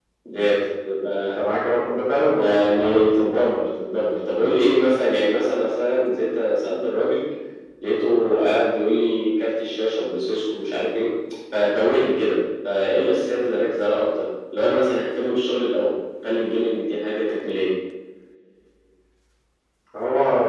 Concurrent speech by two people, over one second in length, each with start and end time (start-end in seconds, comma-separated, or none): 2.3-3.6